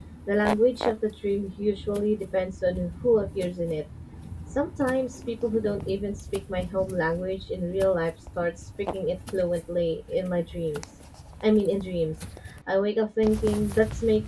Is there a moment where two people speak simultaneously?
No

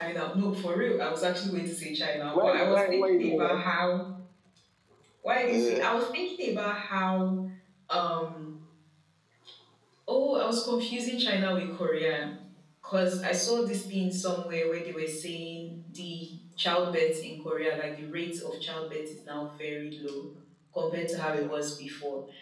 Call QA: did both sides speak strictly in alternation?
No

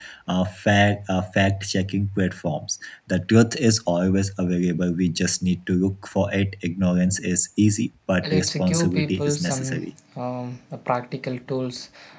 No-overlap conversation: No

